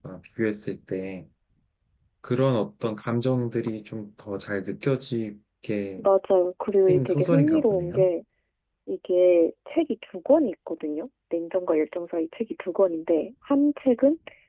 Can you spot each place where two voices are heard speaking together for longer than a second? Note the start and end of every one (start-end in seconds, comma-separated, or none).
6.9-8.1